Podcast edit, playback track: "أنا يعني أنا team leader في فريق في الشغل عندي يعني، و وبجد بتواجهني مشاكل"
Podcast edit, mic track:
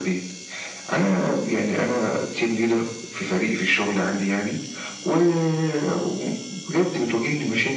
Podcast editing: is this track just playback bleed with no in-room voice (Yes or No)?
Yes